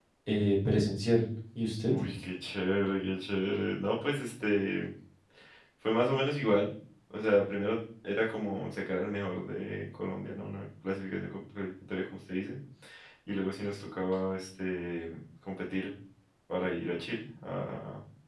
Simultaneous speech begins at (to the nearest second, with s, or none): none